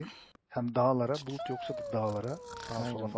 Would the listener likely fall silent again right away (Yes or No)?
No